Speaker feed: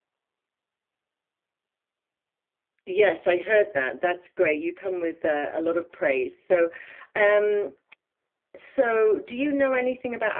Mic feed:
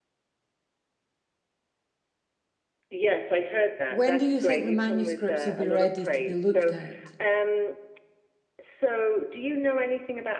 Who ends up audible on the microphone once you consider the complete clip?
both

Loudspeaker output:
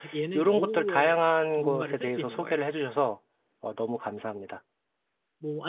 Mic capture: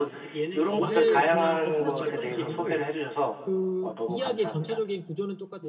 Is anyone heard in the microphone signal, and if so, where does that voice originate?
both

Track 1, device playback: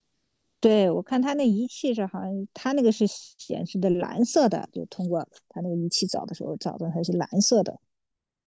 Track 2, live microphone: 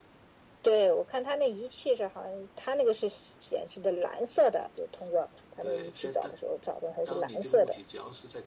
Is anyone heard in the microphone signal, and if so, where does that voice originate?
both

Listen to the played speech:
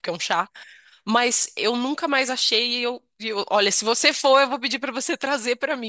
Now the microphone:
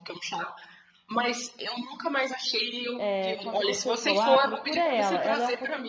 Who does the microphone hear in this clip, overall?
both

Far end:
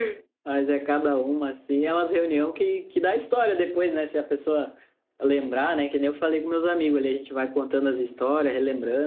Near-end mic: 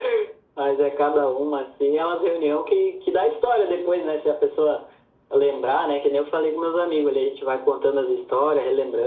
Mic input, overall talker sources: echo only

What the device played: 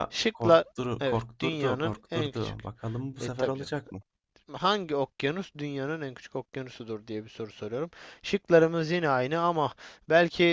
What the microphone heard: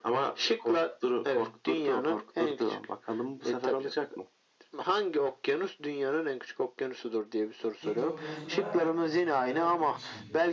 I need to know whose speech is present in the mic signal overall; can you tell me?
both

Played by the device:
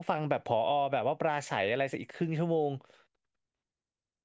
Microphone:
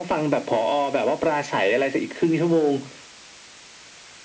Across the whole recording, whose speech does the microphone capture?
echo only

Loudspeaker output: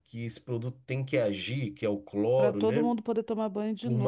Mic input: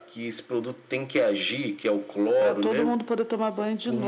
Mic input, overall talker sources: echo only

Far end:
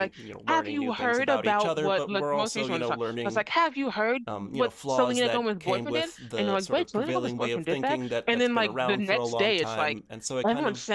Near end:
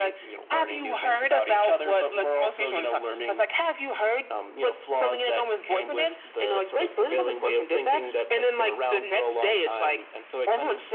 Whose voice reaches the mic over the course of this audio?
echo only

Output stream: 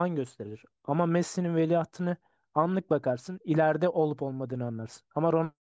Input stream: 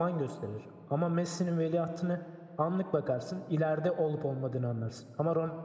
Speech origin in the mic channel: echo only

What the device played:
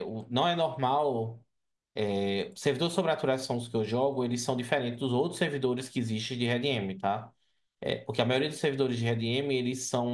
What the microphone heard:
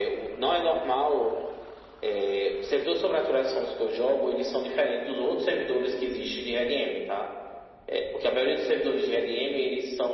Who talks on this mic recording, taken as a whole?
echo only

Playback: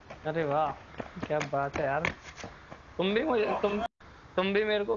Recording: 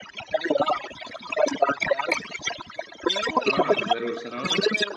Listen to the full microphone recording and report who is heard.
both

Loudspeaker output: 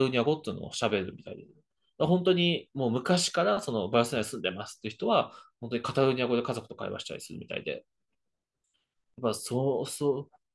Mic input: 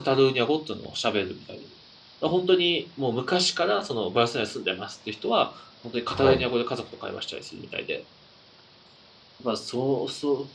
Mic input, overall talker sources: both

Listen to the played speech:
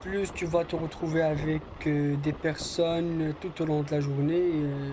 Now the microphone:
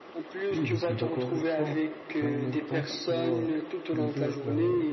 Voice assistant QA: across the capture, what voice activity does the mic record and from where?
both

